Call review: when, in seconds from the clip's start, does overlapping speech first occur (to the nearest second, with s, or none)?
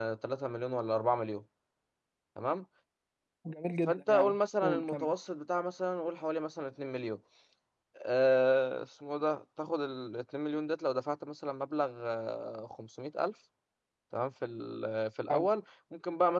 4 s